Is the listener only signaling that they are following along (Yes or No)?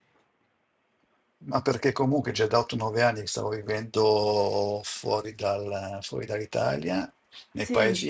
Yes